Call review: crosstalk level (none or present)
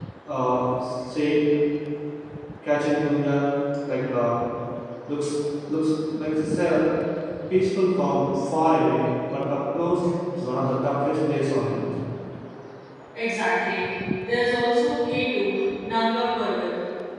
none